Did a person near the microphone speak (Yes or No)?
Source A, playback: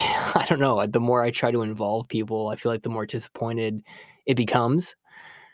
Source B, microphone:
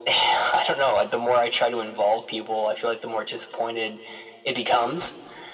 No